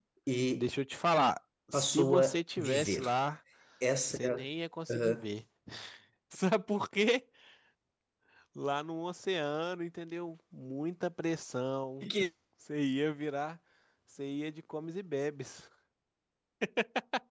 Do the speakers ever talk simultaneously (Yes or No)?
Yes